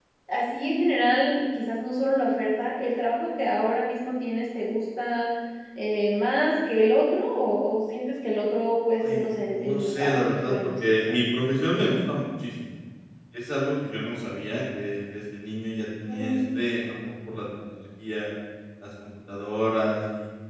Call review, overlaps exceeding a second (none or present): present